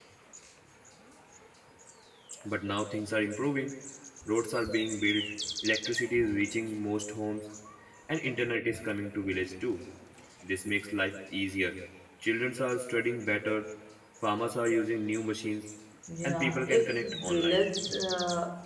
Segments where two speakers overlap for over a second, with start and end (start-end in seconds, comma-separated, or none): 16.2-17.6